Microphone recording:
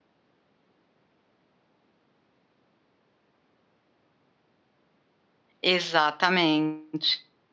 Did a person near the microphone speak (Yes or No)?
Yes